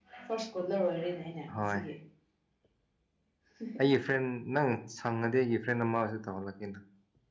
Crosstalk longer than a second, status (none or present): none